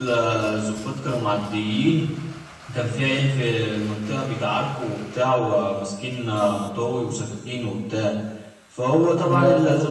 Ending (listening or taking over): listening